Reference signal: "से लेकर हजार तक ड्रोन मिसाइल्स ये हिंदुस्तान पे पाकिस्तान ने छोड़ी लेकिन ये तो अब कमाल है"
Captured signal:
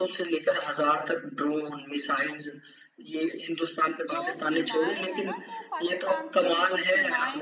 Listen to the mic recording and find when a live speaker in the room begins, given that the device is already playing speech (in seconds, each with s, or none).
4.1 s